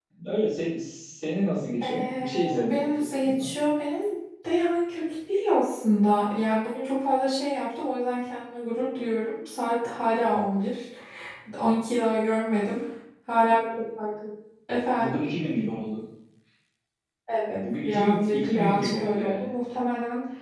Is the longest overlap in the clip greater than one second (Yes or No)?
Yes